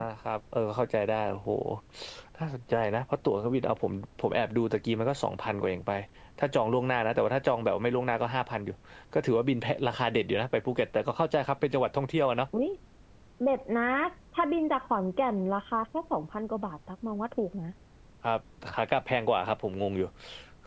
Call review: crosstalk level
none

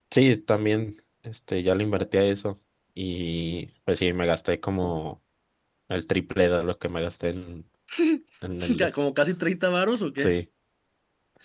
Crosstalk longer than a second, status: none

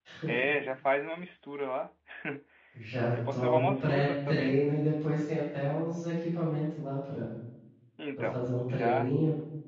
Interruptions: present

